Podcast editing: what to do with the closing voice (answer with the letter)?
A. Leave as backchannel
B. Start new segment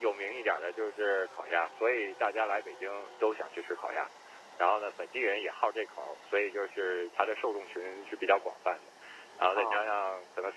A